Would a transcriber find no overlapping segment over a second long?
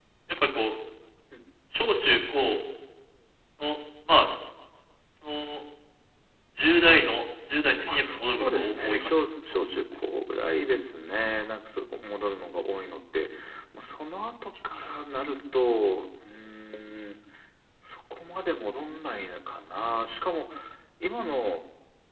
No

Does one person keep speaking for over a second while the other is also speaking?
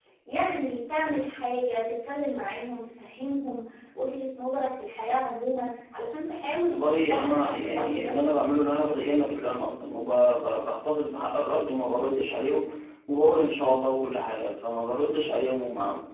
Yes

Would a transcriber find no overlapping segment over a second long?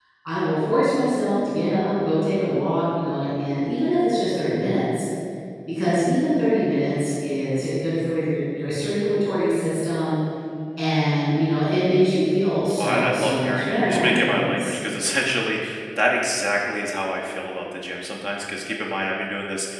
No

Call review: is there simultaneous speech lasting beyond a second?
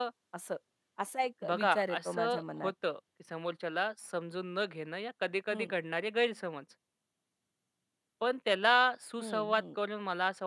Yes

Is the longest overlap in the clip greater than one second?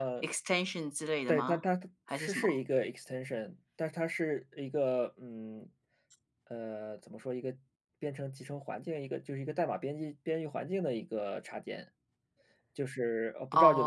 No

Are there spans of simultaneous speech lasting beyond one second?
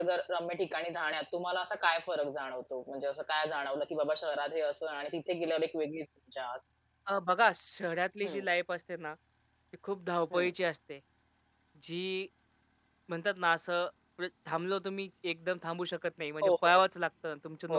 No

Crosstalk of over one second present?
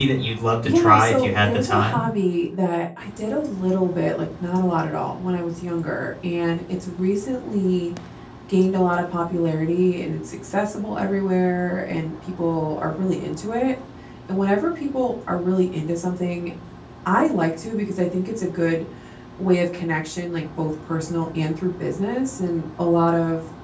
Yes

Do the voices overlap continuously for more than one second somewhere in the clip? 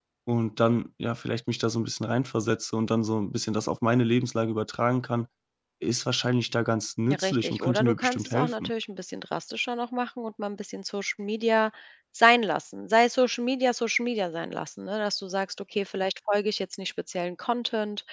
Yes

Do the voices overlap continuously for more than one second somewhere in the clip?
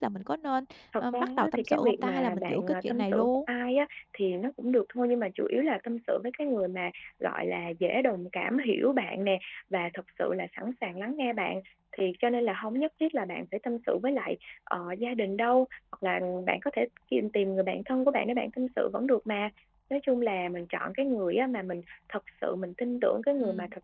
Yes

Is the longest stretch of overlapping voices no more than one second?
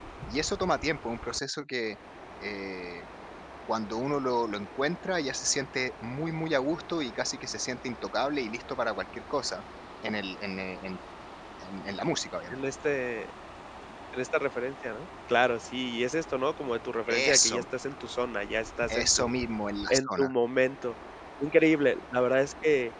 Yes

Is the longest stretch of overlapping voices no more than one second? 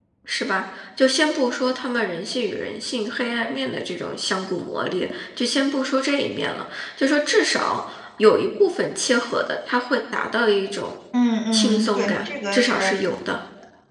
No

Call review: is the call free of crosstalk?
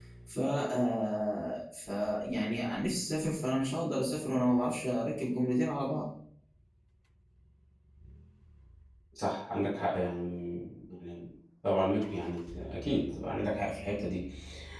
Yes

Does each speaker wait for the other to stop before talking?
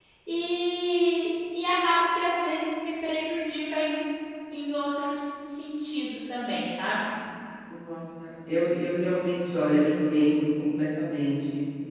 Yes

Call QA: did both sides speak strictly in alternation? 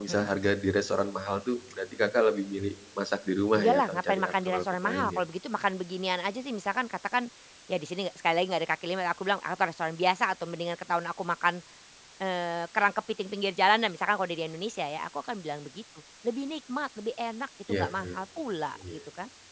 No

